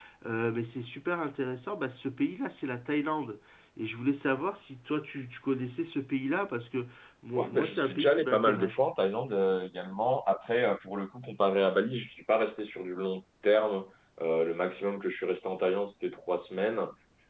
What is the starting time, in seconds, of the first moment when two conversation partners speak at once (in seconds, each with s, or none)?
7.4 s